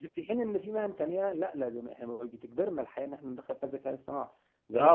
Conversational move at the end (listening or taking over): taking over